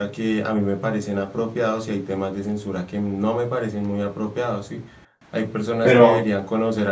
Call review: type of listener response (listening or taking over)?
listening